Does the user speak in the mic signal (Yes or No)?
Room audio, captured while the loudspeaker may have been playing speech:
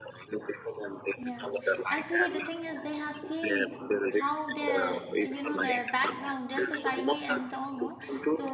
Yes